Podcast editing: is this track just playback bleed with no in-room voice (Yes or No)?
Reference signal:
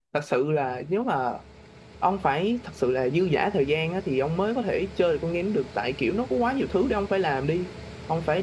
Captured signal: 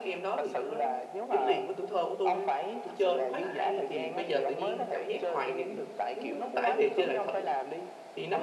No